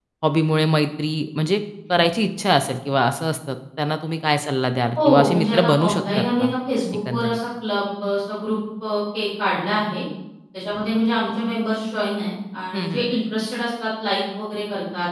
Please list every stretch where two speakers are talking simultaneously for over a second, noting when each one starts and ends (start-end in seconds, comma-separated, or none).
5.0-6.5